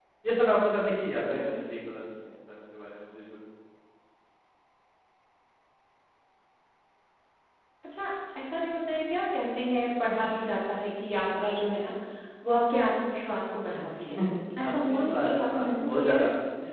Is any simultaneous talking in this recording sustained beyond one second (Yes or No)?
Yes